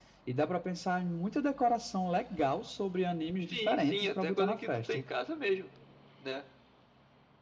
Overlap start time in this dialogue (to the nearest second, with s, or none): 3 s